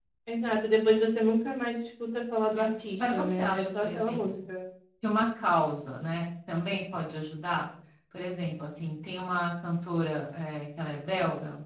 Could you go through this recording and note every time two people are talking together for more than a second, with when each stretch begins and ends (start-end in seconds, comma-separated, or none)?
3.0-4.2